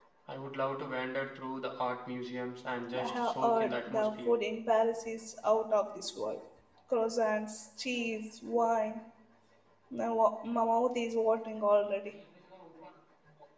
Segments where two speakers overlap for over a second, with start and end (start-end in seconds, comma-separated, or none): 3.0-4.3